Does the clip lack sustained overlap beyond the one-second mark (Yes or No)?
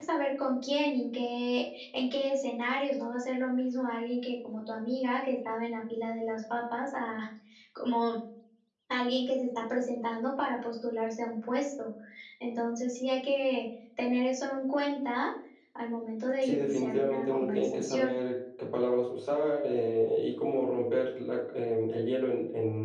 No